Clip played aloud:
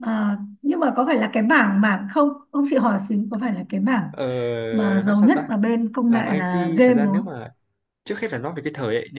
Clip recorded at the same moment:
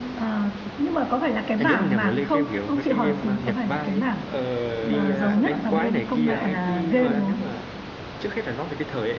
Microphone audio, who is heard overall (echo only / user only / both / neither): both